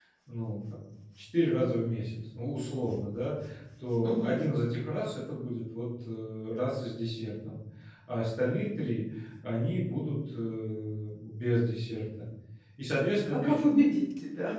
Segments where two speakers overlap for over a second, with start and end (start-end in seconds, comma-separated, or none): none